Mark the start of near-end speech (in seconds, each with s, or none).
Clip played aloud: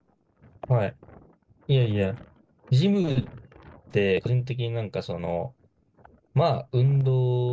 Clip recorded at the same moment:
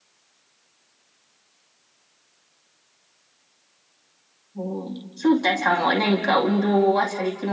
4.5 s